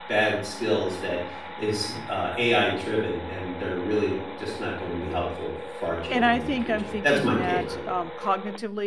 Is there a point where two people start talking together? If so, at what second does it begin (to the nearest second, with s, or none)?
6 s